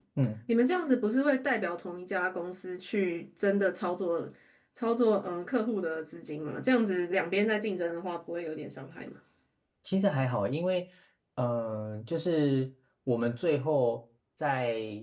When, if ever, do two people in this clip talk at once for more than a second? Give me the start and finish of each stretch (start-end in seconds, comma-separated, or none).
none